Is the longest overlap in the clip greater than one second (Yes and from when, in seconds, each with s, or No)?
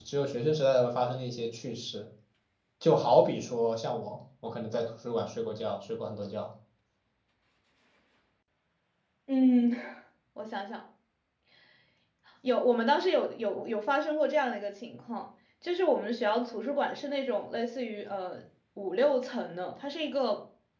No